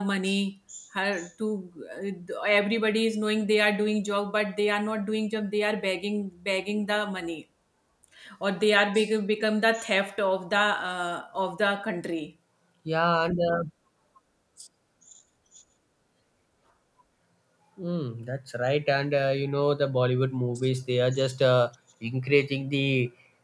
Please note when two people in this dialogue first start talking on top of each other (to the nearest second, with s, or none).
none